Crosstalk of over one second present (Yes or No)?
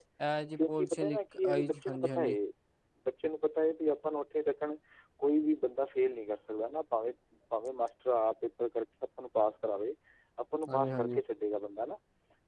Yes